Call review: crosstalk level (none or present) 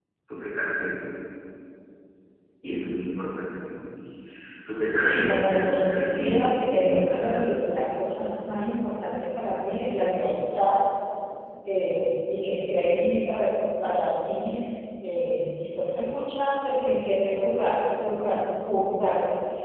present